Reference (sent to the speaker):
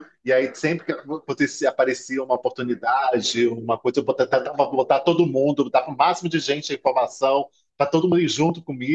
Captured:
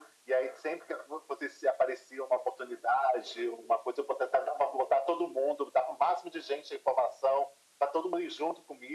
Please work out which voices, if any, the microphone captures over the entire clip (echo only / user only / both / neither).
echo only